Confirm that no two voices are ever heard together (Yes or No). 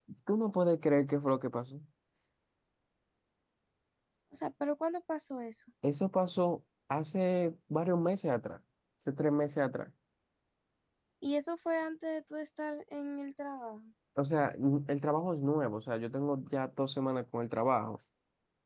Yes